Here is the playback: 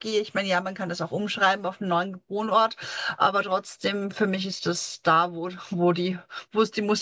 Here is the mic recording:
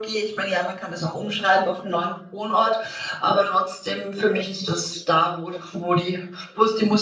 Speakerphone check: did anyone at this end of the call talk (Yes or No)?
No